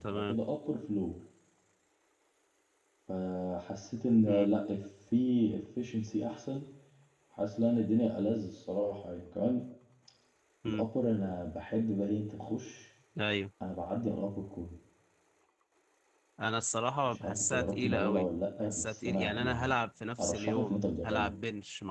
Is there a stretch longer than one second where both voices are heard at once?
Yes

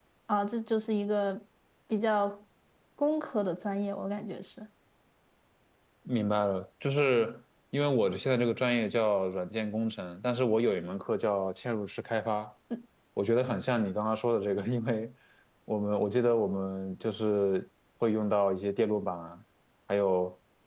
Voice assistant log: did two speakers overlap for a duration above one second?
No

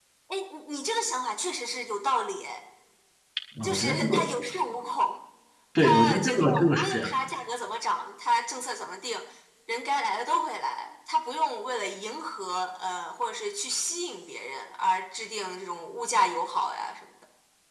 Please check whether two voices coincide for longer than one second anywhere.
Yes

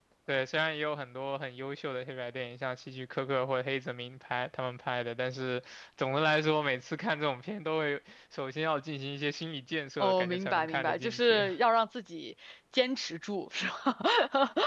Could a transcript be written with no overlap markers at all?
No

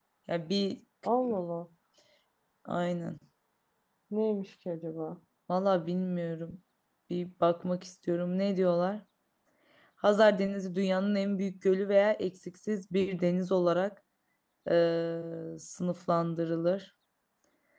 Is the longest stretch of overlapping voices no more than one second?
Yes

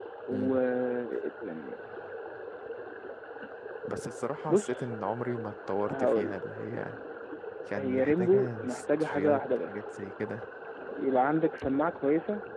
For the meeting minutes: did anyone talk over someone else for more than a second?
Yes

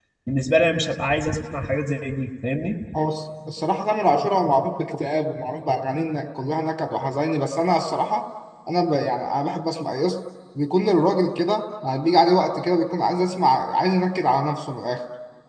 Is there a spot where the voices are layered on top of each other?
No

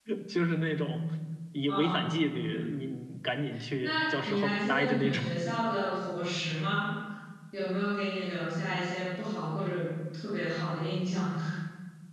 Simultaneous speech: Yes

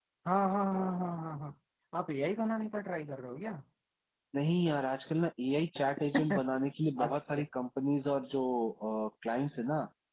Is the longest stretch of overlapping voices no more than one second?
Yes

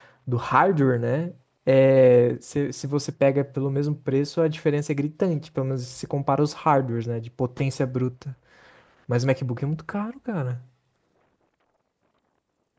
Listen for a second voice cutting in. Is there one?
No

